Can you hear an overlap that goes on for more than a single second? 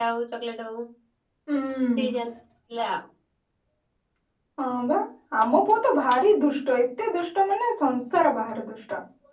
No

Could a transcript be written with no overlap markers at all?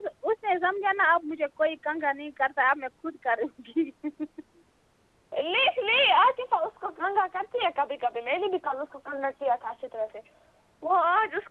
Yes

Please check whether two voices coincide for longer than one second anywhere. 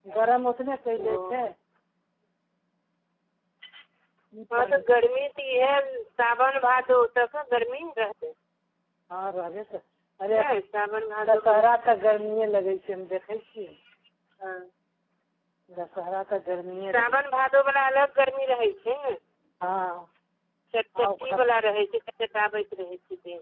No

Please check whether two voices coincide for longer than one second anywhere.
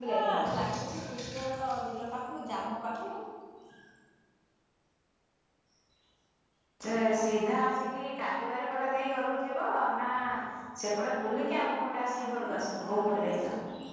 Yes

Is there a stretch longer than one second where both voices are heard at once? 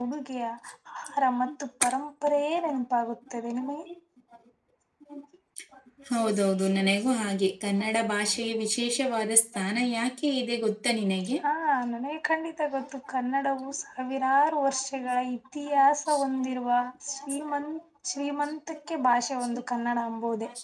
No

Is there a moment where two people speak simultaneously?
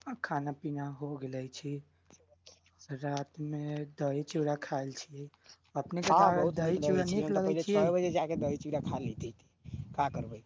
Yes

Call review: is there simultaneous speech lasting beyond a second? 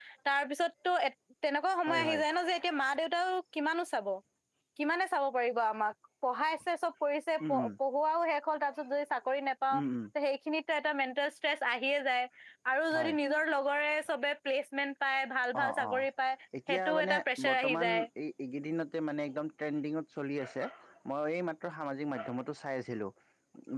Yes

